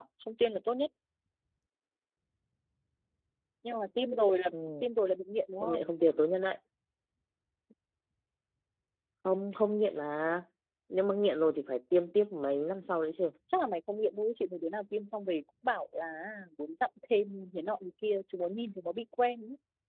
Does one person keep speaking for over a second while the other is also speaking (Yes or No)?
No